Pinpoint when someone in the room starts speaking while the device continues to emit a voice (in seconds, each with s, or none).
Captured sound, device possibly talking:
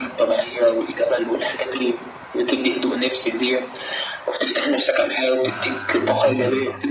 5.4 s